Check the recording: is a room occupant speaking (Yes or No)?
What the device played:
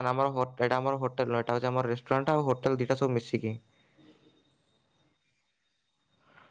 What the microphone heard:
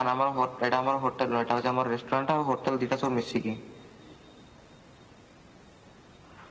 No